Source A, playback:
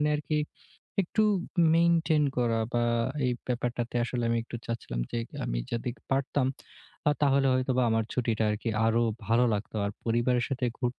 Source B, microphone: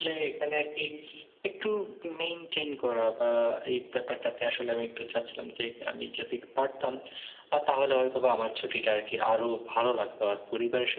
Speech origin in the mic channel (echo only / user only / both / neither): echo only